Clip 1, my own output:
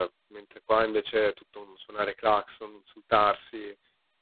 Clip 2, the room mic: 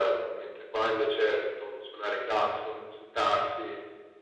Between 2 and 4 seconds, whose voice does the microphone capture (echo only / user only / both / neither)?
echo only